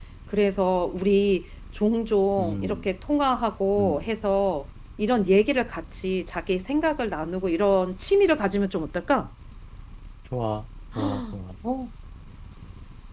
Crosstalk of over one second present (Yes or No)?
No